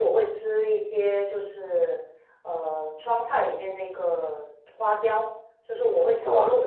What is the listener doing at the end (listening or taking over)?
listening